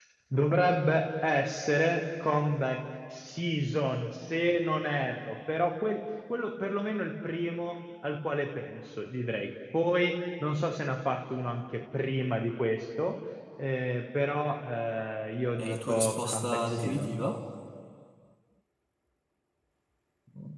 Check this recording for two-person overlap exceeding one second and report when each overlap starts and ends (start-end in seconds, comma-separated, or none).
15.6-17.2